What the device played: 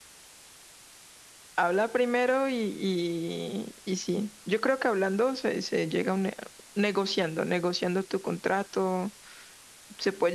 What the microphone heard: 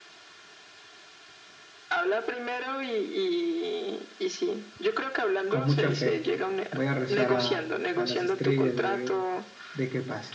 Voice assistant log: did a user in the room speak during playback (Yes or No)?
Yes